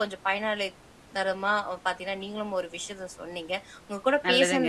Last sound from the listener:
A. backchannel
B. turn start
A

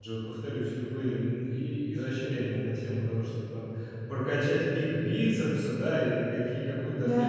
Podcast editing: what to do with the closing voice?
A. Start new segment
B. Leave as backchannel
B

